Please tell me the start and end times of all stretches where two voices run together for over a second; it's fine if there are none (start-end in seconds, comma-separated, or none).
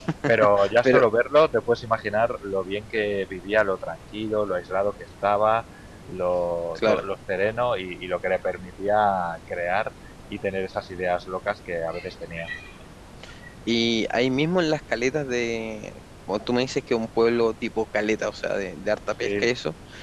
none